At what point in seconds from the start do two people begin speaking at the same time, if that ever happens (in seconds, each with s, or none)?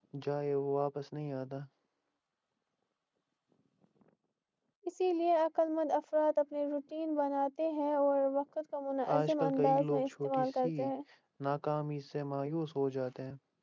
9.1 s